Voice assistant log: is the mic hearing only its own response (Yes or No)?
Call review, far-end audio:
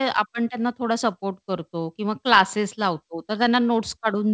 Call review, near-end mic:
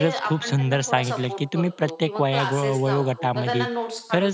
No